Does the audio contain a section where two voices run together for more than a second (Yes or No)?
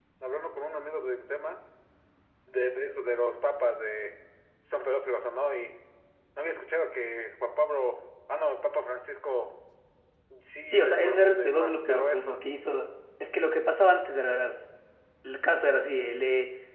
Yes